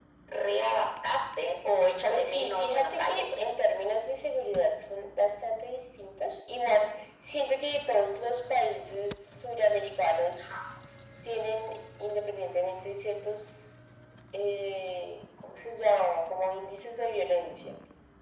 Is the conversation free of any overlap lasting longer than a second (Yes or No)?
No